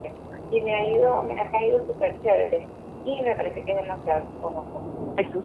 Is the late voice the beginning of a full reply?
No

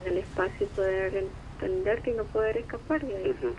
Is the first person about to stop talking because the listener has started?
Yes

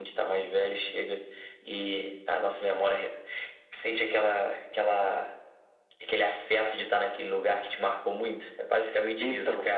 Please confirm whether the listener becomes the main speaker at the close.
Yes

